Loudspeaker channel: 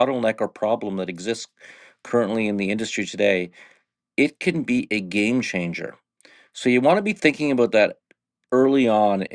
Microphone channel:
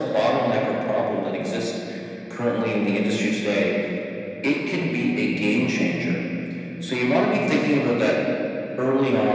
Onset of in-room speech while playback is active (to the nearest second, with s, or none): none